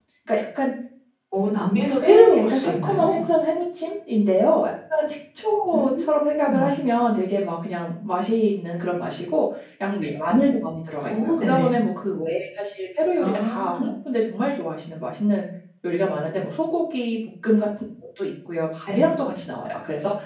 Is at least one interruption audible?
Yes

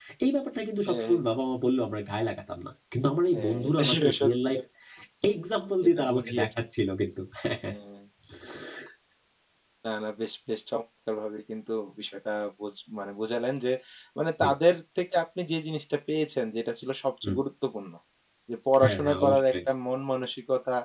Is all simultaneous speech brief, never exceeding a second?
No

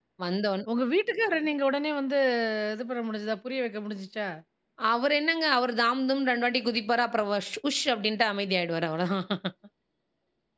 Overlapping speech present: No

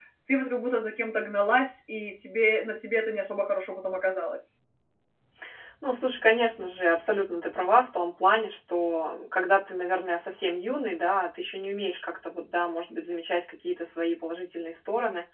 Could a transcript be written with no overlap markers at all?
Yes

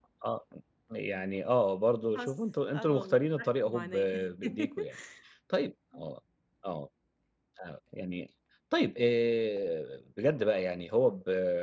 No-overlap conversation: No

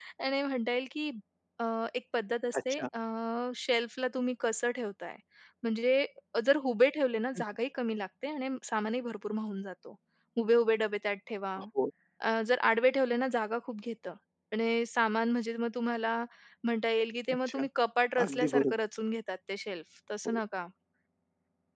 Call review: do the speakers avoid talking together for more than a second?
Yes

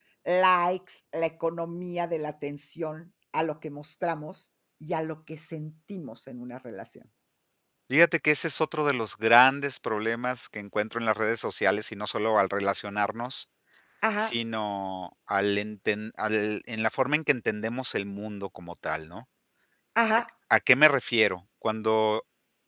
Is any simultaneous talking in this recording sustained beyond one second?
No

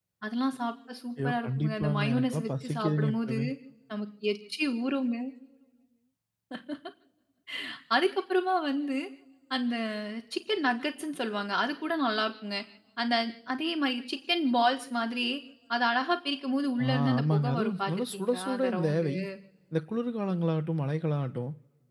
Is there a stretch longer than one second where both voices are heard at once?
Yes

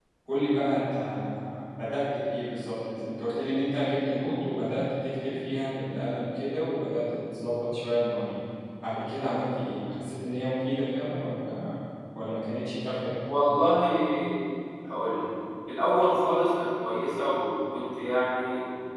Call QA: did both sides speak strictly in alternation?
Yes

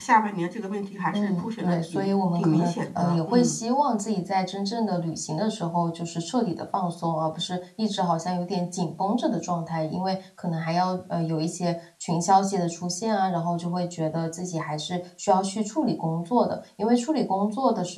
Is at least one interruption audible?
Yes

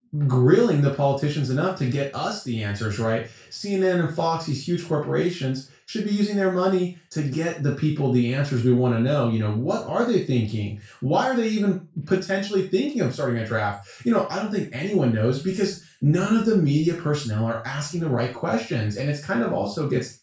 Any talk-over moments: No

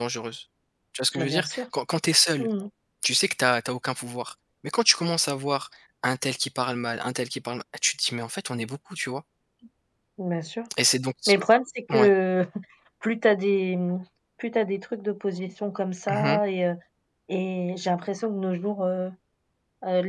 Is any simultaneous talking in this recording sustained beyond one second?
No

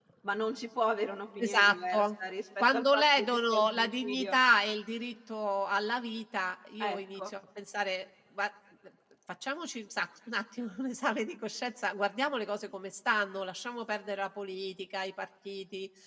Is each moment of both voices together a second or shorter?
No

